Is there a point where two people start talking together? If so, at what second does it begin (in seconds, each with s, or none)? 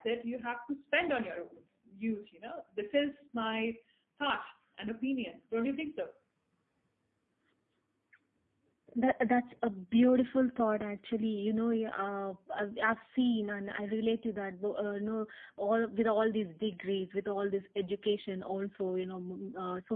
none